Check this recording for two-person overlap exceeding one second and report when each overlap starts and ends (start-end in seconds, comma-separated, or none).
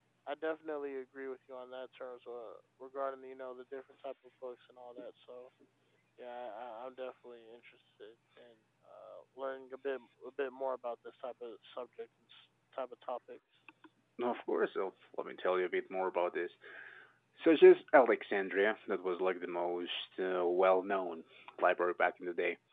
none